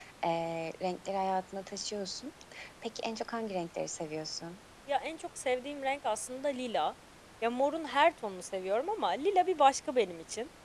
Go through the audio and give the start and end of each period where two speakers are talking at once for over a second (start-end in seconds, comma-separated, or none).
none